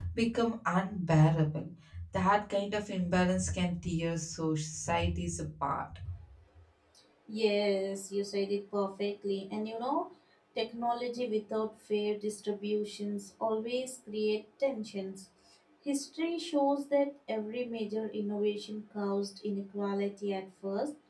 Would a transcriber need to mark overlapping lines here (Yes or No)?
No